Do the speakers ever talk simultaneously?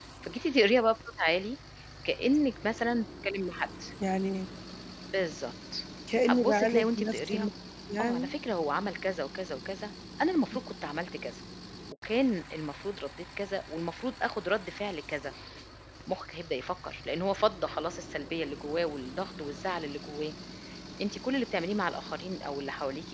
Yes, from 6.2 s

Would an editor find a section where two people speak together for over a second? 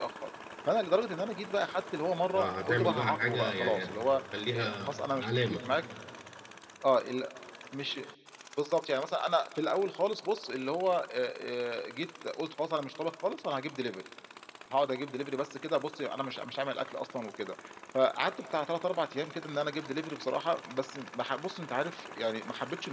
Yes, from 2.3 s

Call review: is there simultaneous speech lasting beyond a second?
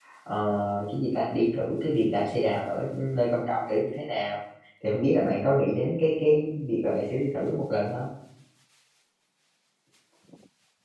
No

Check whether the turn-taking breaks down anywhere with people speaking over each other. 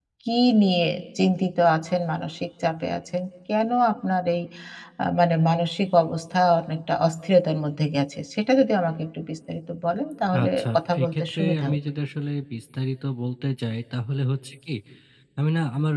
Yes, from 10.3 s

